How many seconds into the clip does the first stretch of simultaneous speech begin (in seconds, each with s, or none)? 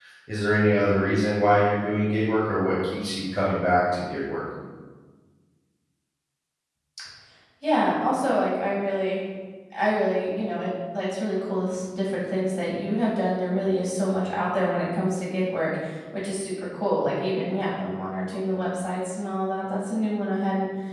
none